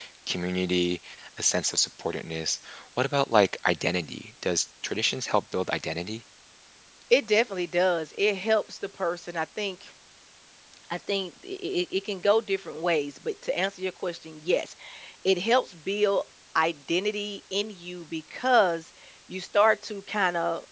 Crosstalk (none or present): none